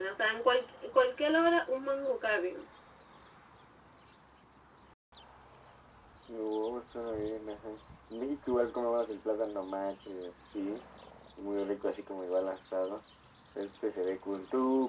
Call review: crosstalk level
none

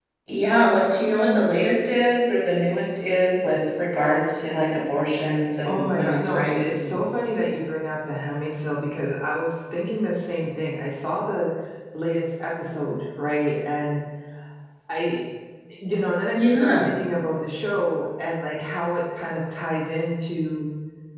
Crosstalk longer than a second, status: present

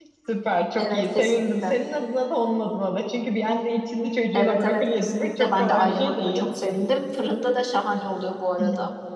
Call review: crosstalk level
present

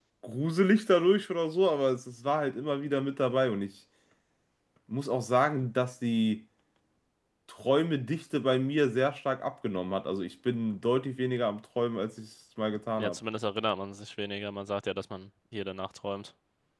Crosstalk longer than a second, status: none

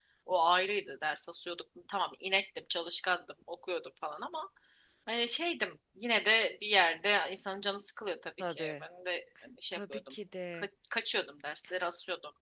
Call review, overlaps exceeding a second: none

